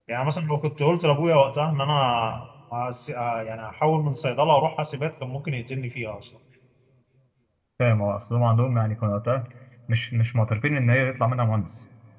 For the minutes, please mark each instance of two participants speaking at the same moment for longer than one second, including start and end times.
none

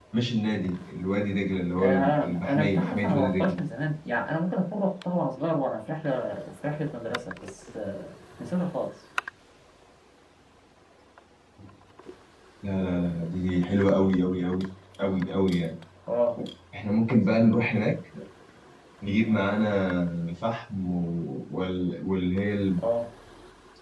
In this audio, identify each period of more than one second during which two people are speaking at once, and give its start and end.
1.8-3.5

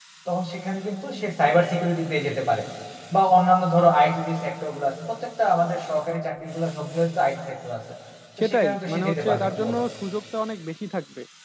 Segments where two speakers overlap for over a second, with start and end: 8.4-9.8

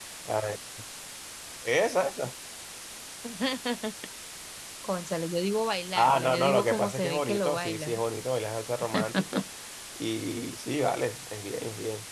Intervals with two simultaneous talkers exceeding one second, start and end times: 6.0-8.0

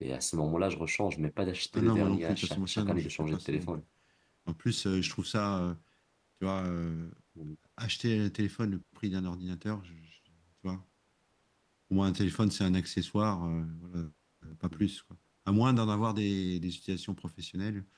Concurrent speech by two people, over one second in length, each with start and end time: 1.7-3.7

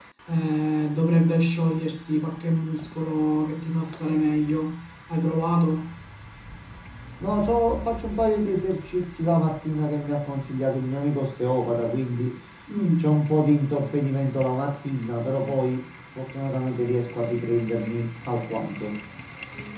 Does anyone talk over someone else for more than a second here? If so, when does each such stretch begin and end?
none

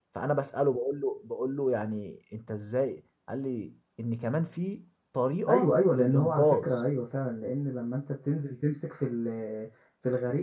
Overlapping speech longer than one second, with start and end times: 5.5-6.7

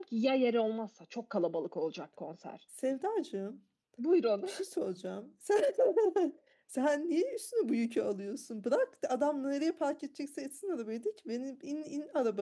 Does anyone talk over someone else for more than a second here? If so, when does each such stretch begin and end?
none

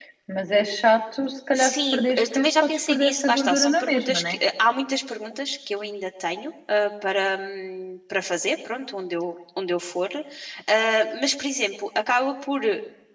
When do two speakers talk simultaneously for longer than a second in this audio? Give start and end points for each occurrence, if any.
1.6-4.4

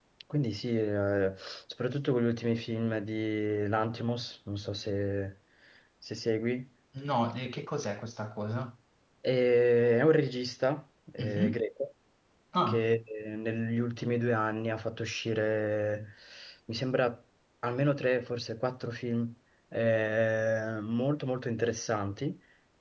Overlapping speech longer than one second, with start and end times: none

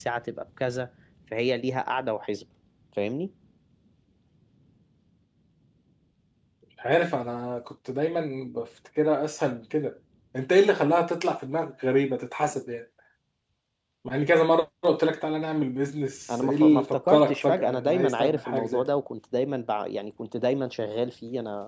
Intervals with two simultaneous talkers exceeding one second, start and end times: 16.3-18.9

